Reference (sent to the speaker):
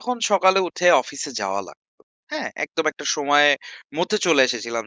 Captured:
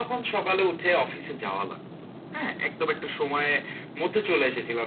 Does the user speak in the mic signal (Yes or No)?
No